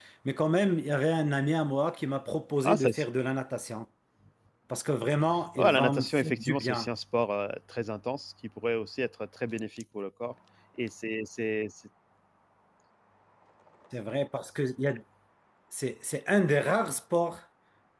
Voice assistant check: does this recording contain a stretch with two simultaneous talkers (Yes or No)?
Yes